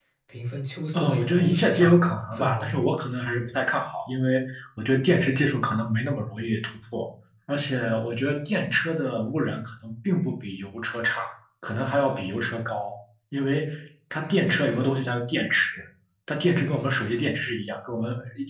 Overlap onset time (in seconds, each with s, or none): 0.9 s